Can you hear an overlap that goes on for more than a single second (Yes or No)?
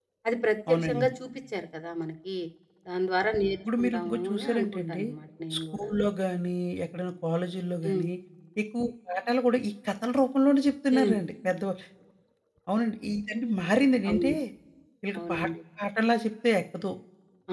Yes